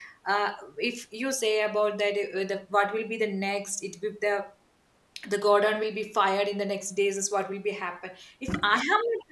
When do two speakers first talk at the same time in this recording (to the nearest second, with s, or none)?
none